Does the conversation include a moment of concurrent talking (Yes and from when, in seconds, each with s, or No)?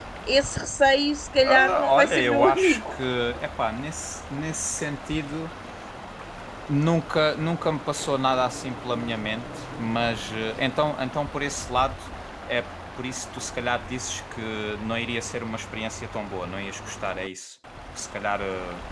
Yes, from 1.4 s